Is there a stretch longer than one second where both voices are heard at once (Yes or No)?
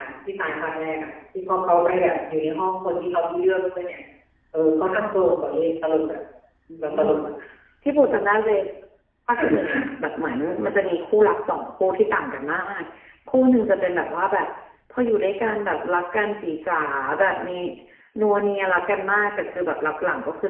No